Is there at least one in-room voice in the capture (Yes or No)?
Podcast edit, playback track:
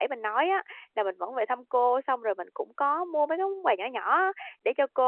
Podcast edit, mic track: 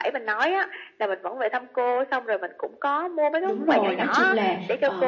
Yes